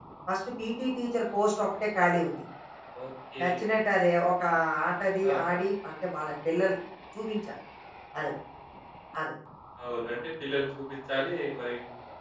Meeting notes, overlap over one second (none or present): none